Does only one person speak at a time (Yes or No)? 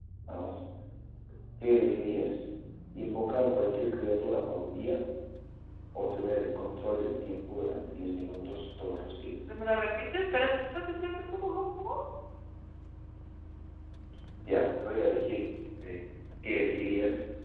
Yes